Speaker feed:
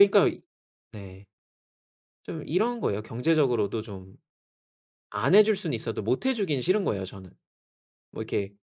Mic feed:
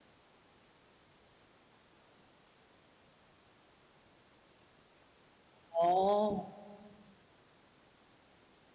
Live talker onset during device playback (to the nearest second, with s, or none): 6 s